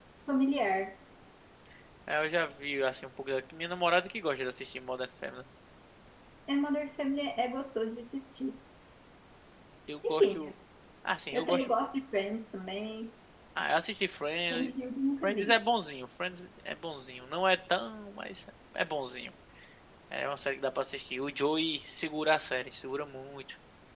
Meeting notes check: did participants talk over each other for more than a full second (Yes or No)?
No